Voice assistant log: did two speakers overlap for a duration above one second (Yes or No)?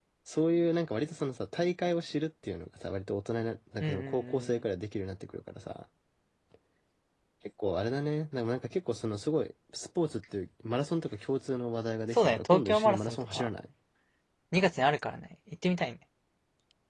Yes